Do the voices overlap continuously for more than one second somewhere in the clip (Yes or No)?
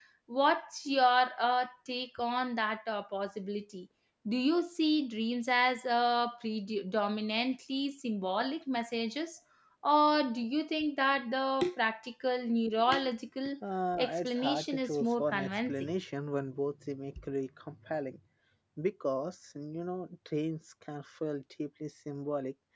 Yes